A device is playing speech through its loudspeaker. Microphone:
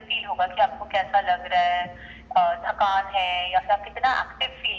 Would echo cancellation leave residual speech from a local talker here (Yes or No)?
No